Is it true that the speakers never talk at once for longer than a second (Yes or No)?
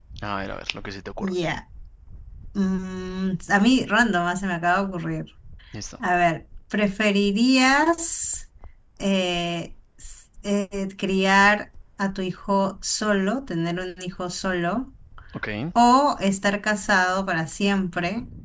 Yes